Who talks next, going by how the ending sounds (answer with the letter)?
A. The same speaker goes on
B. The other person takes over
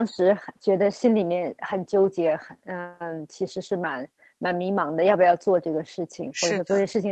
A